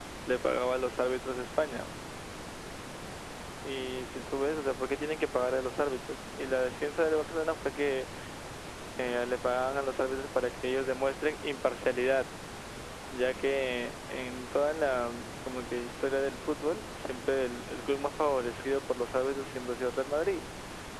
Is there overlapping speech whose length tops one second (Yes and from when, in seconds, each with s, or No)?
No